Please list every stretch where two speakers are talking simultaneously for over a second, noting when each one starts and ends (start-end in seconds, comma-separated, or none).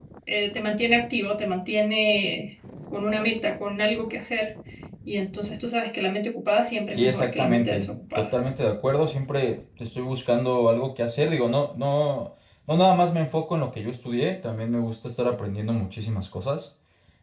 6.9-8.3